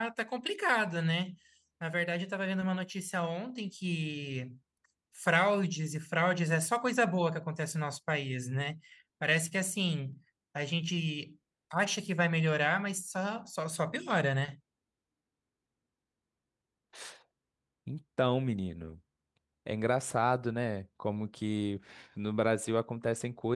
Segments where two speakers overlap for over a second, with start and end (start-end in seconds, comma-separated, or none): none